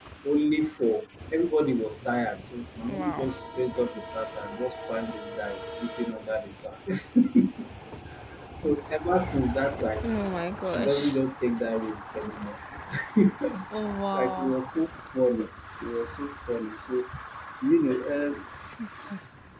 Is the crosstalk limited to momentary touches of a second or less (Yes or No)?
Yes